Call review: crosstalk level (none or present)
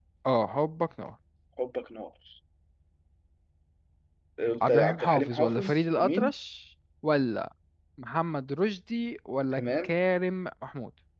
present